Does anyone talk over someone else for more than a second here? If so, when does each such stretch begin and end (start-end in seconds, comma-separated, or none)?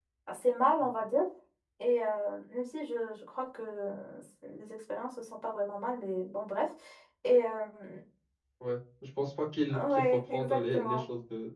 9.7-11.0